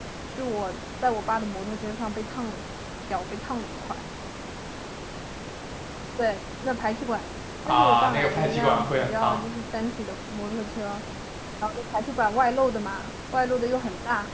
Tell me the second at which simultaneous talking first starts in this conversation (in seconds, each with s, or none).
7.6 s